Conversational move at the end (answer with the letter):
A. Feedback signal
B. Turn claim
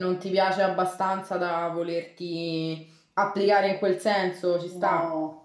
B